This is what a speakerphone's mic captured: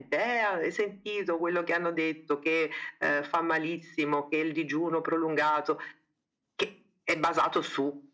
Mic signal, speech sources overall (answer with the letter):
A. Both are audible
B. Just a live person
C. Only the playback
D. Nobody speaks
C